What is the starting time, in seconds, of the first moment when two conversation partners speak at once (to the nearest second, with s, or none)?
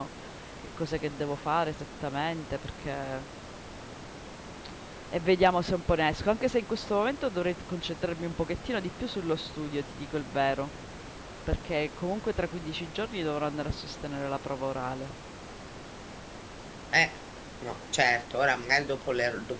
none